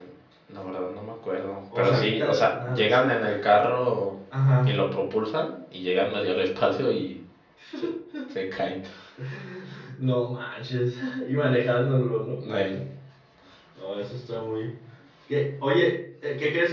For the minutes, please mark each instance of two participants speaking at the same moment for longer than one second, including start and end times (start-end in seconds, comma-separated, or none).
1.8-3.3